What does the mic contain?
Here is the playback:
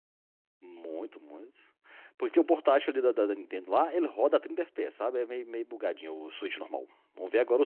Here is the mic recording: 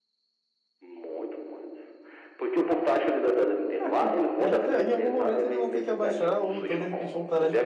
both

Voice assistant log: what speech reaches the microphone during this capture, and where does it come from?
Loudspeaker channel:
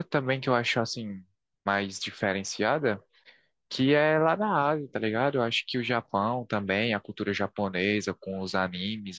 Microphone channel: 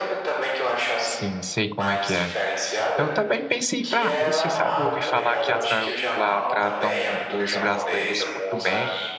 both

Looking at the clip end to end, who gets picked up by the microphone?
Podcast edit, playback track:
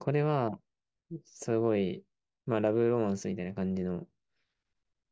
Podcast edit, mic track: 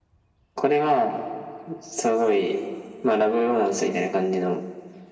echo only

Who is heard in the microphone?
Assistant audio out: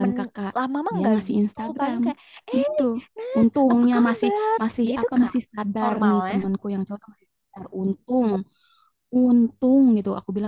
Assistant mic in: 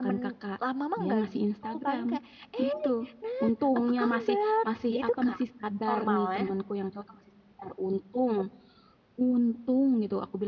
echo only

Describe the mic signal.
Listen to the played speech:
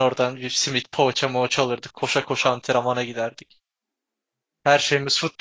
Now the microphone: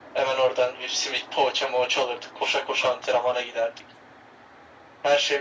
echo only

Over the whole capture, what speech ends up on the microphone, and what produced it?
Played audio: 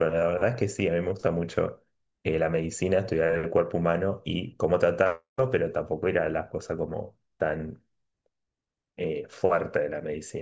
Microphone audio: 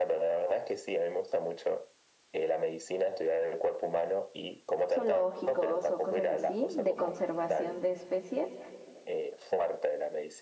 both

